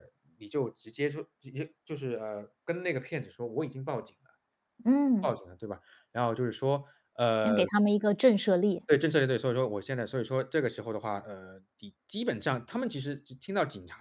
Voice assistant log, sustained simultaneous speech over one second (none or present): none